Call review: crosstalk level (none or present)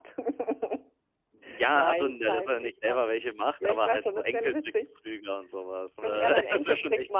present